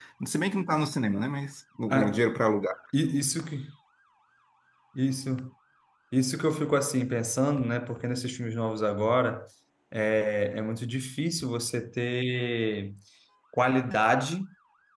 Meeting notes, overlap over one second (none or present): none